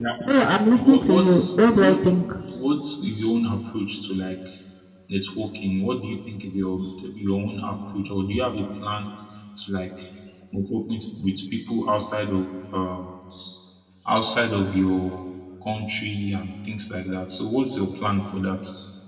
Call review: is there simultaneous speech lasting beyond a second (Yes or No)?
Yes